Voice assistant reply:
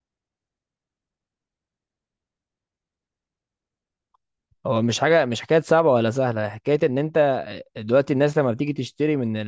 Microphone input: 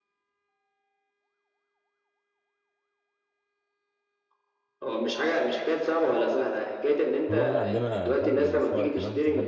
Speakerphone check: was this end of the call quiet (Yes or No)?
No